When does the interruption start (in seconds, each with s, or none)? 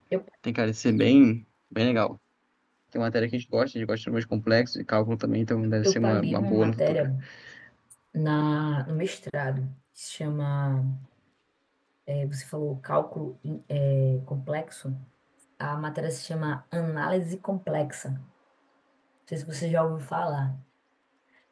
5.8 s